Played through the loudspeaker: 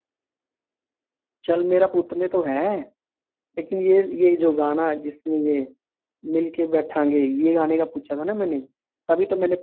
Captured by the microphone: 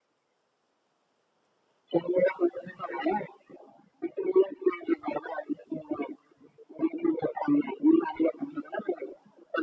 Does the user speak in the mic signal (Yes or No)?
No